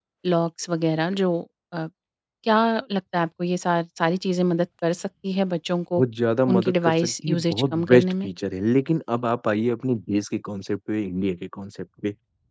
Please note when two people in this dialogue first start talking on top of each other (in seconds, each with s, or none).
6.5 s